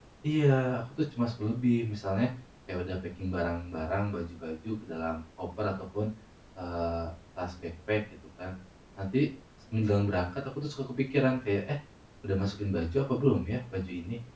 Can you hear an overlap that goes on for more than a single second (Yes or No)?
No